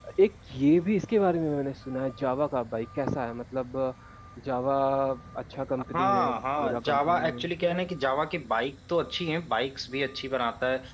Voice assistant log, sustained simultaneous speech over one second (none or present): present